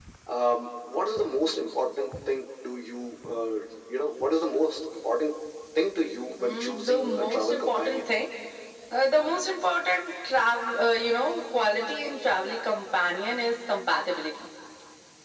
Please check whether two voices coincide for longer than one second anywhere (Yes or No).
Yes